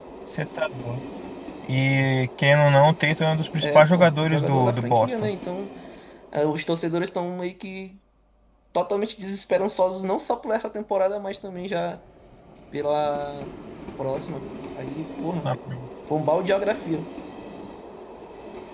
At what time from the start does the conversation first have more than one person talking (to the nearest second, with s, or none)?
4 s